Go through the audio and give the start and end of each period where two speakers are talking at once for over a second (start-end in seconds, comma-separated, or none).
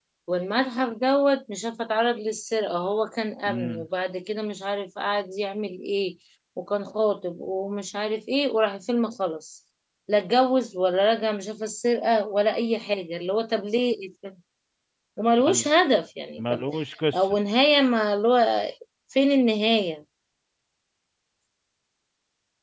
none